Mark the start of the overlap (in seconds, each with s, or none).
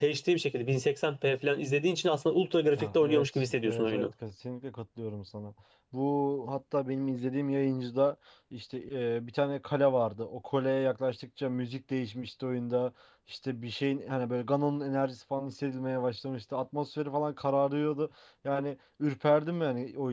2.8 s